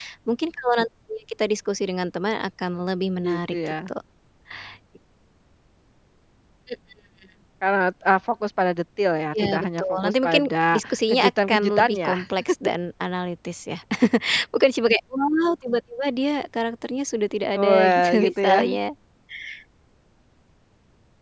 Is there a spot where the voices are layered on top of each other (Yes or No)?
Yes